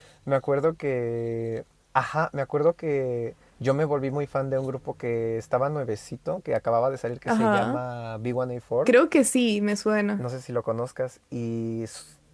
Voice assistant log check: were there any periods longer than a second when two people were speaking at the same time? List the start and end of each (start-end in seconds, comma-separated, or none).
none